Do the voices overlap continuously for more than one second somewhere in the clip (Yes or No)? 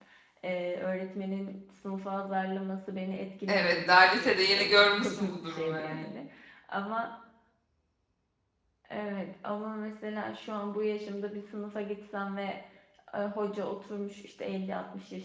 Yes